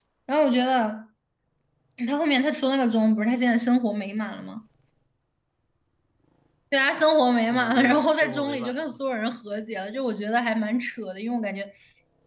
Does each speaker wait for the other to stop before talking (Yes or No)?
No